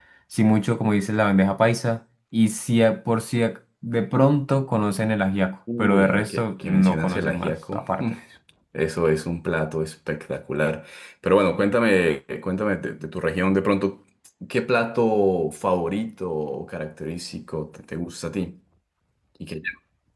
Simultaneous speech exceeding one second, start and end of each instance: 5.8-8.0

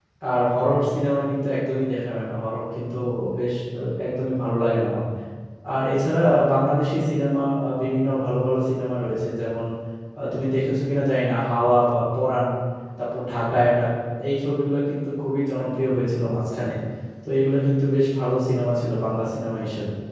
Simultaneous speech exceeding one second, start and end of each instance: none

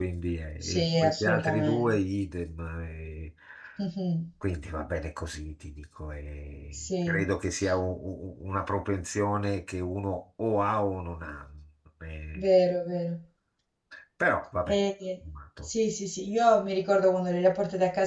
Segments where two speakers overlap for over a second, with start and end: 0.6-2.0

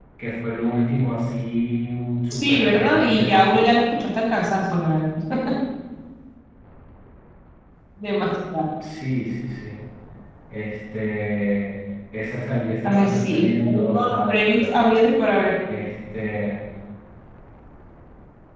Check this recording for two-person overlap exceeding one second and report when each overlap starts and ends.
2.3-3.6, 12.8-14.8

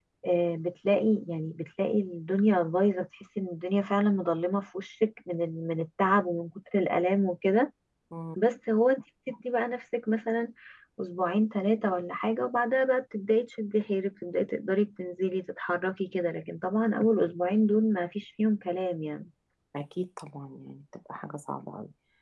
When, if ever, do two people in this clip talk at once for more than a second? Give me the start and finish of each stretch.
none

